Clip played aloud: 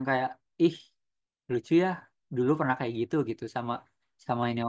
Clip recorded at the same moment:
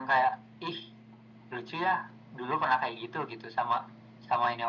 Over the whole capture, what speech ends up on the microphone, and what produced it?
echo only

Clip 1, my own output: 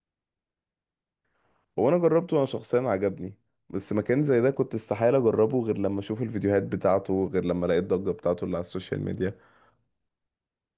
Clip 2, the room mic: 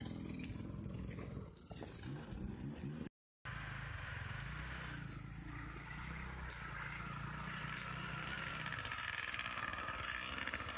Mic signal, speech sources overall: neither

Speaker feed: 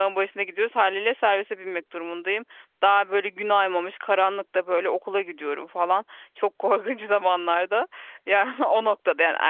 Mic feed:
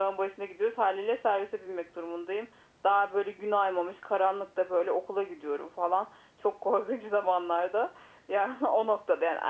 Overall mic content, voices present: echo only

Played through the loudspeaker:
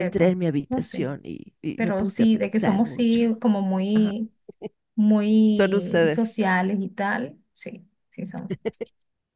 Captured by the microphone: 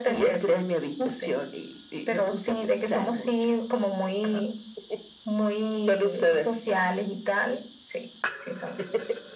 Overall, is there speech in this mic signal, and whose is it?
echo only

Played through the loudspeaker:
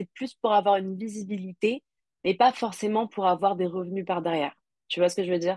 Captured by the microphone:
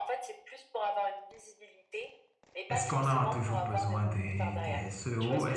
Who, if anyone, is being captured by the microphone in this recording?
both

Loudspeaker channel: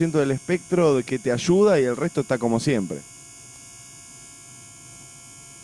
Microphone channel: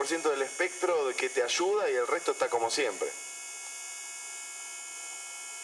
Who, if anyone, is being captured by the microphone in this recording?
echo only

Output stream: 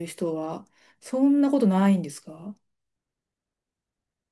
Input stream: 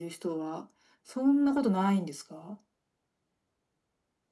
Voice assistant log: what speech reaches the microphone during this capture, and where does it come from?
echo only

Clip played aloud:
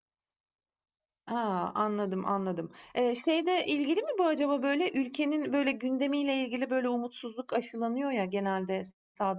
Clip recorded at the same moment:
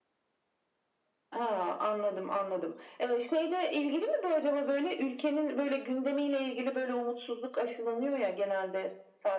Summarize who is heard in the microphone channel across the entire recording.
echo only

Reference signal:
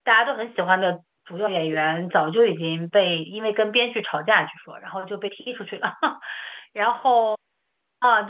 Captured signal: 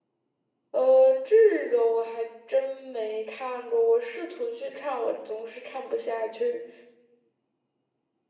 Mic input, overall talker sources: user only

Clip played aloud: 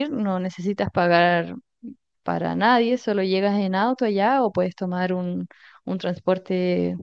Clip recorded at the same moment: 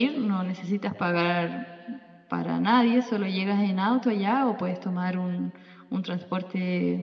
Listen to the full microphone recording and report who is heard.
echo only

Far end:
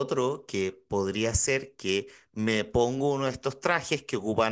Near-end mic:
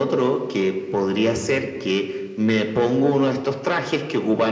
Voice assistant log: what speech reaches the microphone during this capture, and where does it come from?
echo only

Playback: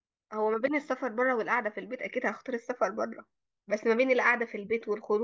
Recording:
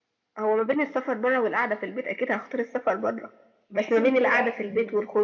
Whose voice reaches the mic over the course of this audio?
both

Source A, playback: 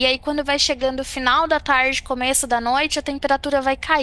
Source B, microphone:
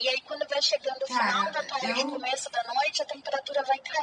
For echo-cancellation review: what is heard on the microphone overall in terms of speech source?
both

